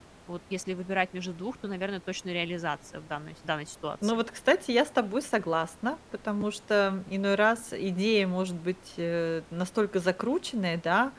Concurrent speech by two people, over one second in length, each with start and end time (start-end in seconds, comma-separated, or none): none